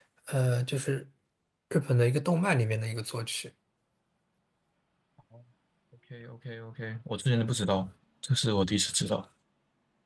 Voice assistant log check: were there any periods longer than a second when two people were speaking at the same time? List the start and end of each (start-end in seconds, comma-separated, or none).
none